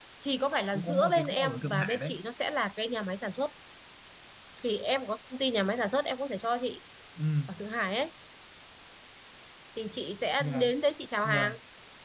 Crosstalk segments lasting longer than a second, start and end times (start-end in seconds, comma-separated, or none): 0.7-2.1